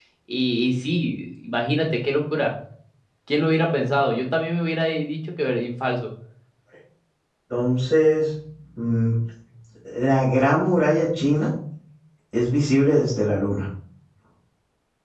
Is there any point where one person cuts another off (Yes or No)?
No